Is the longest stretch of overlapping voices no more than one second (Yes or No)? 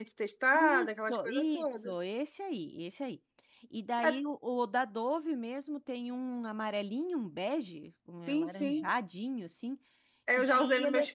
No